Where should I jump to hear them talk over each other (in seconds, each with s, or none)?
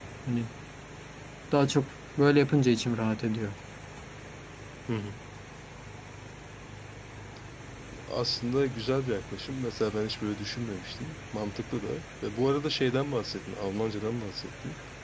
none